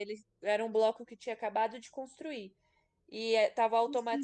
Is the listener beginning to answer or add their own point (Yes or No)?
No